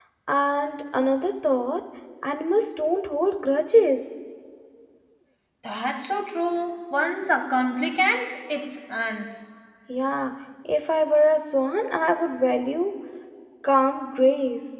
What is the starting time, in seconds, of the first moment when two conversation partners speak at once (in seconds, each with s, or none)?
none